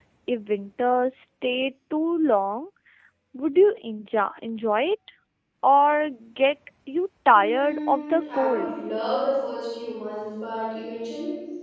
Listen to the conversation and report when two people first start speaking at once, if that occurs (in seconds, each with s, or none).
7.4 s